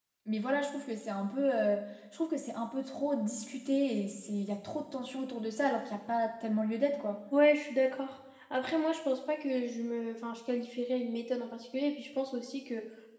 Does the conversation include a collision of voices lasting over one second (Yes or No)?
No